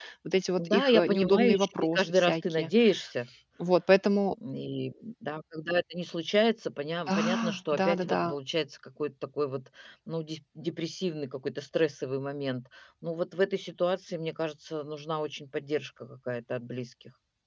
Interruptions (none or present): present